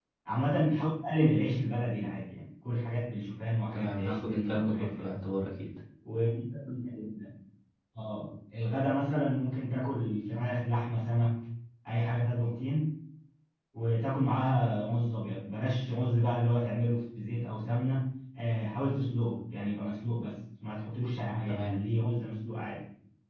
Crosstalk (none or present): present